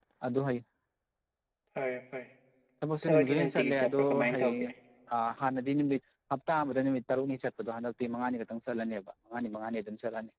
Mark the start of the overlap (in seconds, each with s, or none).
3.0 s